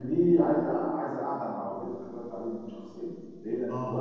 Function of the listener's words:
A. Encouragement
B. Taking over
A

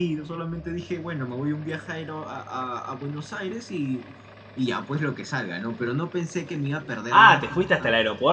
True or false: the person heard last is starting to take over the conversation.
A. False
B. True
B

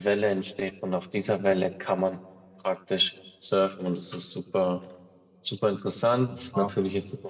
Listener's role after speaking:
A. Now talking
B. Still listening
B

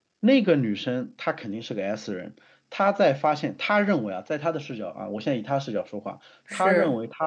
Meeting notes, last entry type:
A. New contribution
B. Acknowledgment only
B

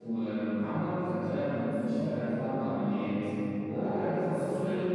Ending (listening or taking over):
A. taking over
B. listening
B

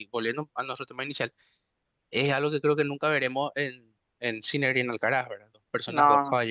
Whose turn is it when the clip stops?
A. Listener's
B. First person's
B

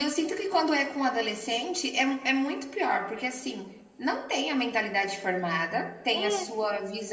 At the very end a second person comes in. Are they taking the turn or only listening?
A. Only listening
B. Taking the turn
A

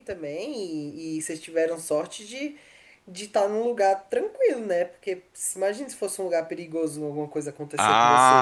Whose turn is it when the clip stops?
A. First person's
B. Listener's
B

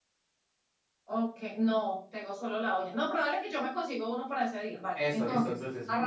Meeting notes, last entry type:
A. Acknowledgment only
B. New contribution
B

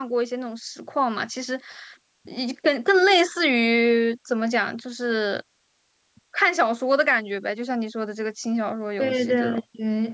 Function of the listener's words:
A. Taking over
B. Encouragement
A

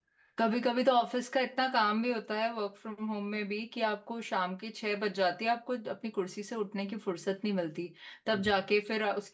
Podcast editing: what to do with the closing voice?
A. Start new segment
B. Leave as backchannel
B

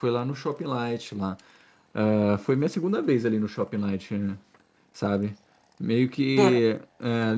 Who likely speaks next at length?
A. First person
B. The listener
A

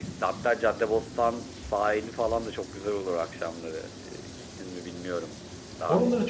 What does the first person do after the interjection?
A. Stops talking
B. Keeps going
A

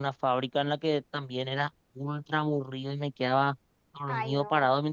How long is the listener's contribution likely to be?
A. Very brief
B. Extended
A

